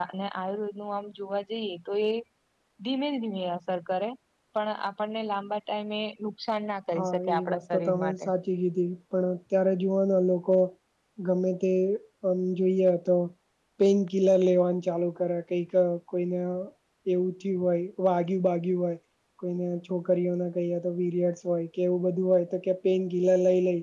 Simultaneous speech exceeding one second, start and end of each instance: 7.0-8.2

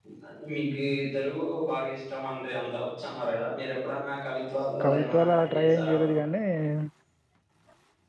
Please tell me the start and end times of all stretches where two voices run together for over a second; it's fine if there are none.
4.8-6.1

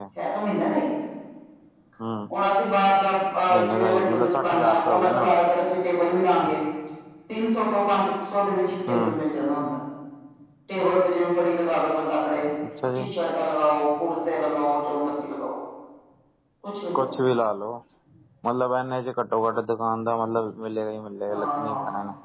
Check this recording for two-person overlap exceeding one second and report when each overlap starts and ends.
3.5-5.3

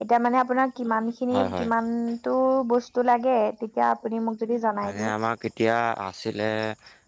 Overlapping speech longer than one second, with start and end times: none

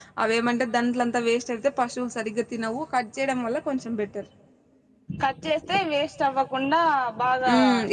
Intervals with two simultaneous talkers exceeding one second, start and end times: none

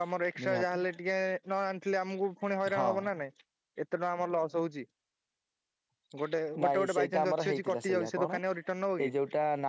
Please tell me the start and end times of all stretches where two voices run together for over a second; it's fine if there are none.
6.6-8.3

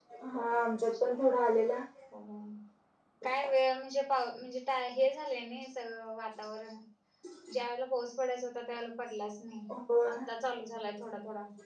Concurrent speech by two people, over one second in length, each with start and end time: none

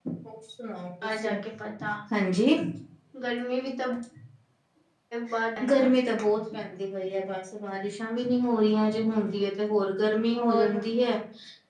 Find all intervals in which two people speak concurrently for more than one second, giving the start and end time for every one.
none

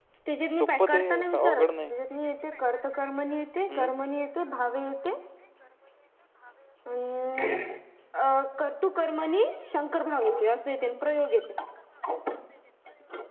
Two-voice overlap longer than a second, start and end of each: 0.6-1.9

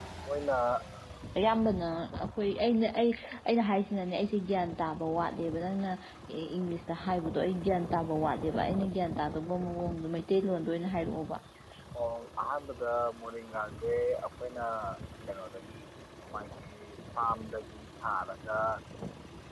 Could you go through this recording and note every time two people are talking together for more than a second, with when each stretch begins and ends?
none

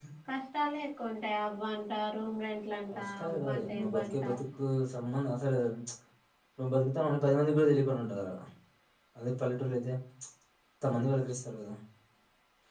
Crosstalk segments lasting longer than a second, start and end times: 3.0-4.3

